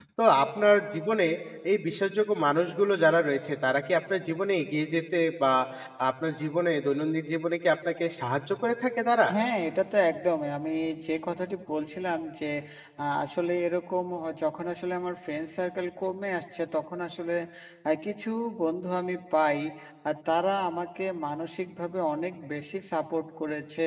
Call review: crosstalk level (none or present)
none